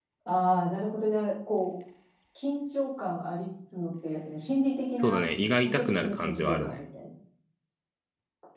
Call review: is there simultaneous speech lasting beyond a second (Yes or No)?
Yes